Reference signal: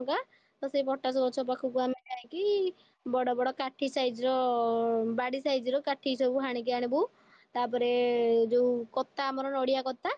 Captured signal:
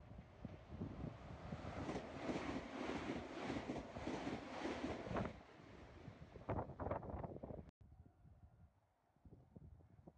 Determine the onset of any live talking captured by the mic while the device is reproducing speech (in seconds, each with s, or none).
none